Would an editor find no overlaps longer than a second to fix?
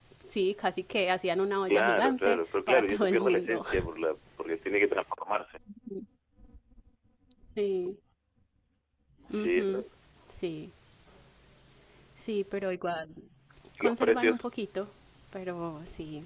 No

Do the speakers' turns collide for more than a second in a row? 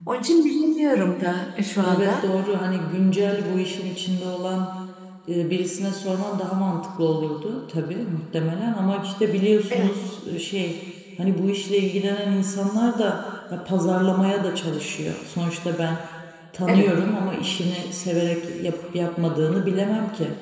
No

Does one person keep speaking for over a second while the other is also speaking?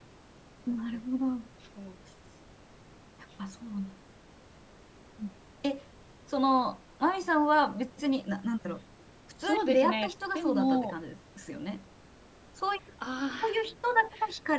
Yes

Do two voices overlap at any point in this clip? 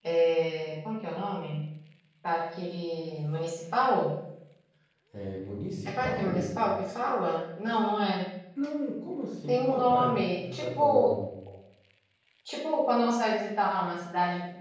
Yes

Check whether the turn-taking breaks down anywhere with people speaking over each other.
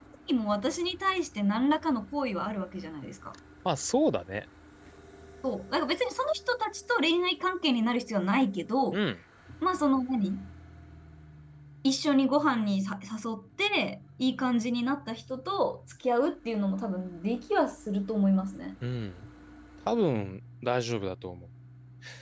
No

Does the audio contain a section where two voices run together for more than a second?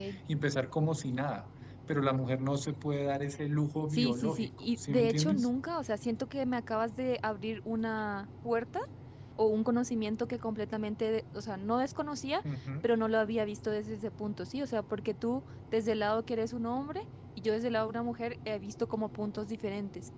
Yes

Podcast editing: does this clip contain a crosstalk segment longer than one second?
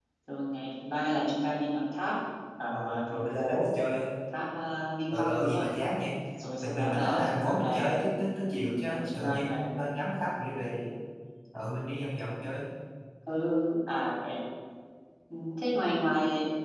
Yes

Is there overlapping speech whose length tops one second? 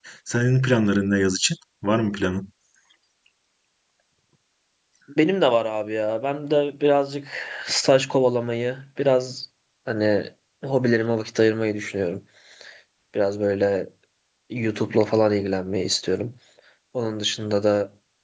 No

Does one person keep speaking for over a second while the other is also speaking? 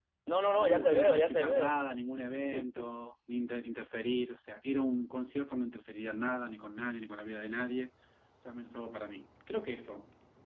Yes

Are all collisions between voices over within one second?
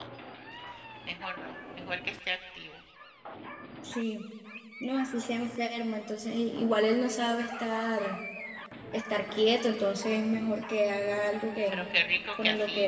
Yes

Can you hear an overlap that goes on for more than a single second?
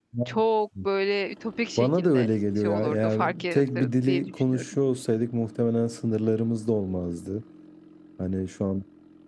Yes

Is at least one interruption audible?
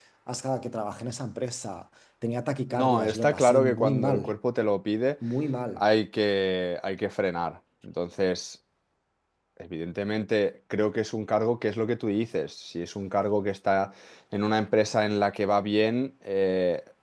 Yes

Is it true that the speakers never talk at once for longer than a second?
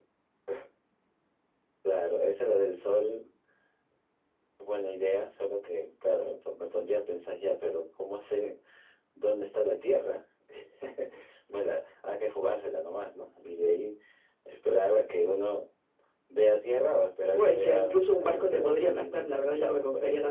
No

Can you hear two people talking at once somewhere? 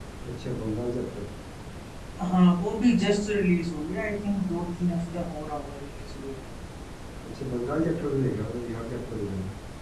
No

